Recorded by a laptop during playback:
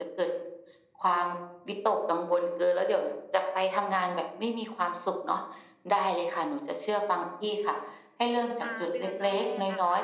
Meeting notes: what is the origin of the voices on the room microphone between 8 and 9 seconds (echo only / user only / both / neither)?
both